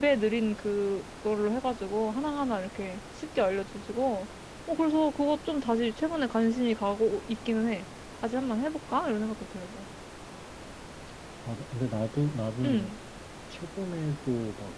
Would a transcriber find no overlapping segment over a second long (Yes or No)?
Yes